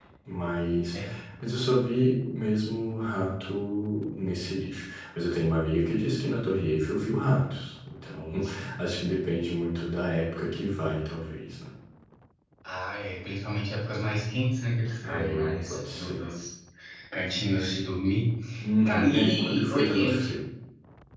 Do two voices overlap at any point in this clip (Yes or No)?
Yes